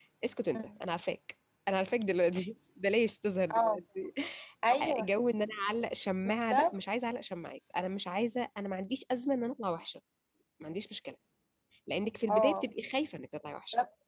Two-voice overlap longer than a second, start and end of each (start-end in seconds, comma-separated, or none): none